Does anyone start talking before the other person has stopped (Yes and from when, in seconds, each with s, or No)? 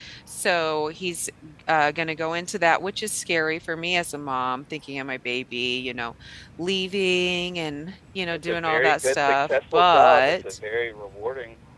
Yes, from 8.3 s